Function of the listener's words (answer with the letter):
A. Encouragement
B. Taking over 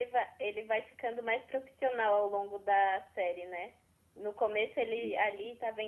A